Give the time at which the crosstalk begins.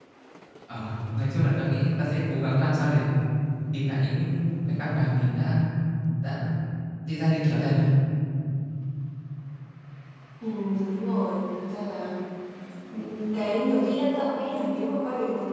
none

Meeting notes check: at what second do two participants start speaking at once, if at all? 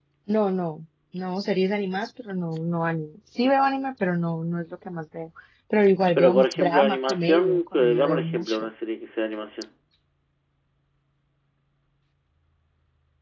6 s

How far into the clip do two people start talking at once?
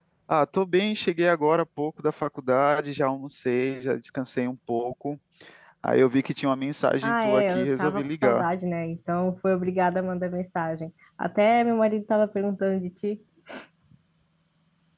7 s

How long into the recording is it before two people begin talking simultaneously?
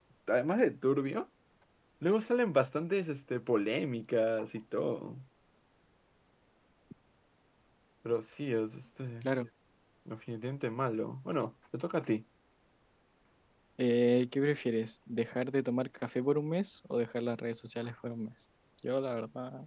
none

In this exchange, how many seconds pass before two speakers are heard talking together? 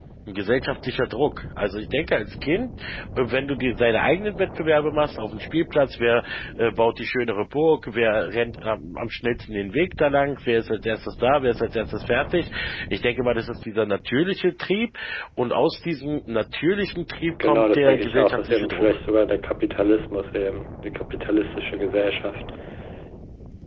17 s

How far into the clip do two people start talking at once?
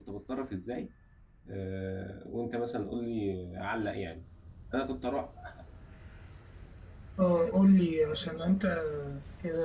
none

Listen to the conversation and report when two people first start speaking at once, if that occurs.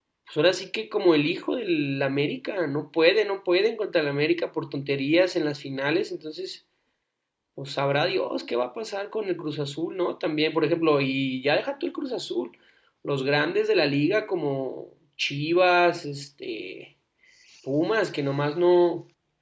none

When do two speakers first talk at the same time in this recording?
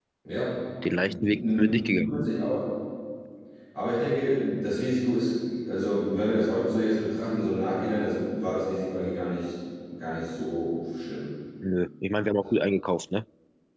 1 s

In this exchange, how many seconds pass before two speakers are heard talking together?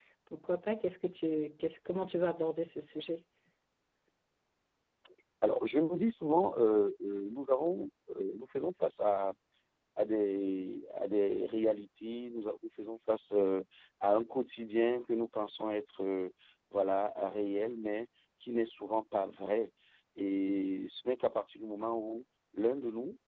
none

